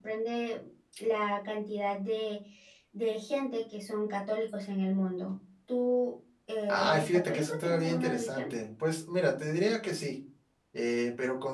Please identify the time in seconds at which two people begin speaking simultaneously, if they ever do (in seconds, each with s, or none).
6.7 s